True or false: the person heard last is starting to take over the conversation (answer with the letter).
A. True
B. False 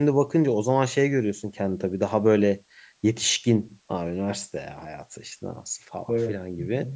B